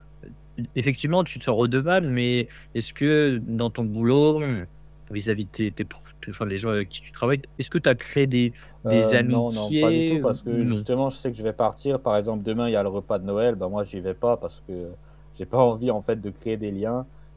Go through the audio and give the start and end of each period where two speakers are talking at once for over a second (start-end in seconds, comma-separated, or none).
8.8-10.8